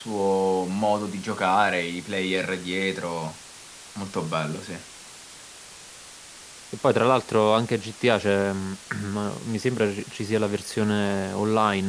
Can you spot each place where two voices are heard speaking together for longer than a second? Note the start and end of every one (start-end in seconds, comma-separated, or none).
none